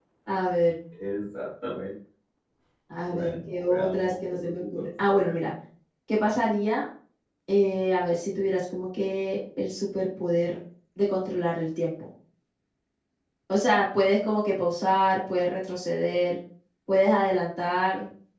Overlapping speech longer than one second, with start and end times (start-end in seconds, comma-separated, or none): 3.1-5.3